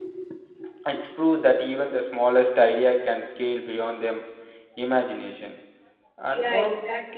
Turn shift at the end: Yes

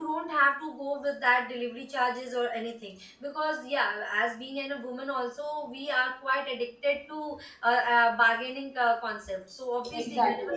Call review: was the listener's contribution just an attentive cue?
No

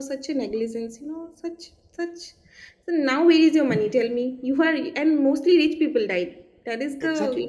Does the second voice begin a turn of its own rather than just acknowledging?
Yes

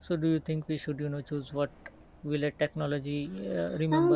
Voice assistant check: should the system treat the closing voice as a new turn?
Yes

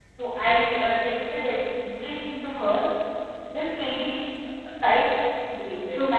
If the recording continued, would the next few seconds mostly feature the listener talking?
No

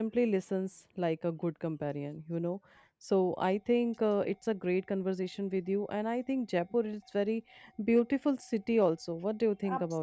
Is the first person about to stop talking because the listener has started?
Yes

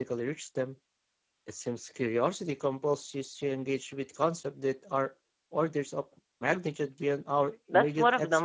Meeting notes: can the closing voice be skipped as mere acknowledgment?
No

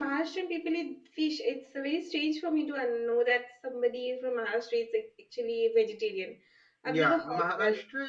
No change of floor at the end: No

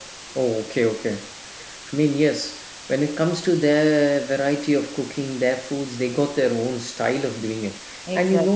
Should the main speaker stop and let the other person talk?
No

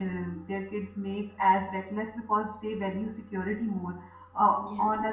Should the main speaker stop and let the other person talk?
No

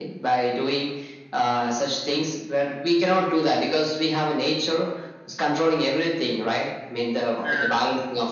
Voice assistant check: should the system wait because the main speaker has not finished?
Yes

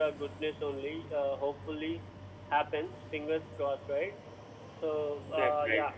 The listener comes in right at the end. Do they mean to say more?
No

